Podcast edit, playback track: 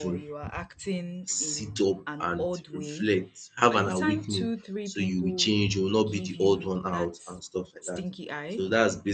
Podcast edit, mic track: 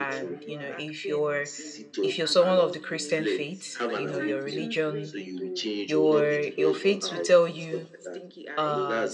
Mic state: both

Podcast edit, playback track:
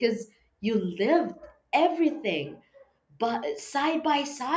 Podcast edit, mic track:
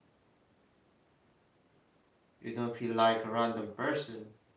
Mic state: user only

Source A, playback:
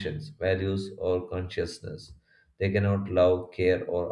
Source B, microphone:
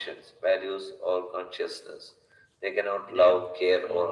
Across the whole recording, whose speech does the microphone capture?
both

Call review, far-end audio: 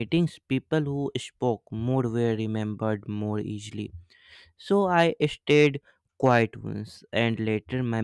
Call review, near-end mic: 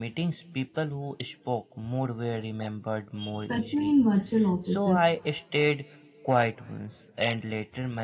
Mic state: both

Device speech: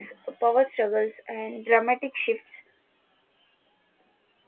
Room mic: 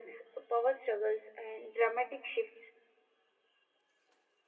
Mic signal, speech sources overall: echo only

